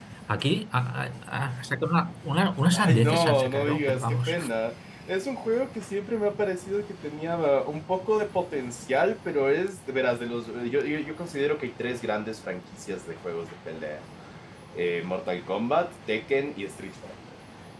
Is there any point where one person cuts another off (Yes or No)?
Yes